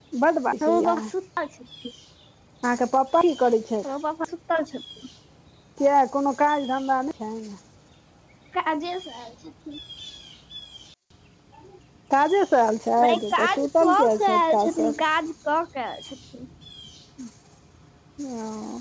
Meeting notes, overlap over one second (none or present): present